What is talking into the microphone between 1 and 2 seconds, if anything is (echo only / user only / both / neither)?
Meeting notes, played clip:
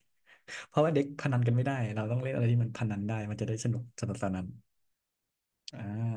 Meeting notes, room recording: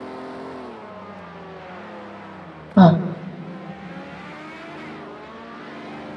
neither